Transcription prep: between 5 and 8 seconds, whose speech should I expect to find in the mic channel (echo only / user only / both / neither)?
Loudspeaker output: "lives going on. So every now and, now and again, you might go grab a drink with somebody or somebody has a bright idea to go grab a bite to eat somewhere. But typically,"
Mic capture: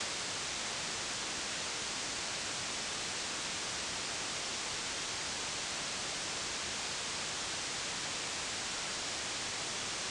neither